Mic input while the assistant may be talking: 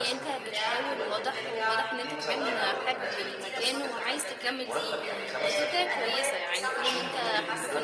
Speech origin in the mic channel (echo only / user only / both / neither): both